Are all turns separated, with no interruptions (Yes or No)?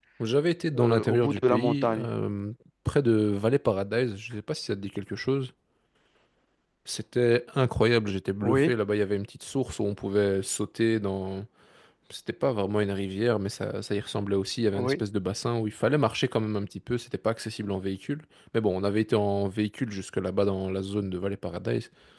No